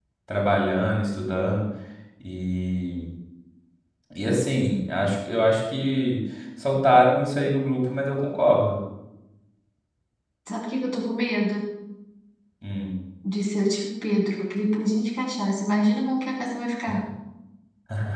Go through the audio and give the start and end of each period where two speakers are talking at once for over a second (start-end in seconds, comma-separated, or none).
none